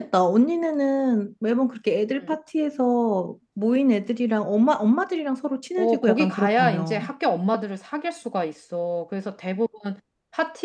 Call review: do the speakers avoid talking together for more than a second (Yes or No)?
No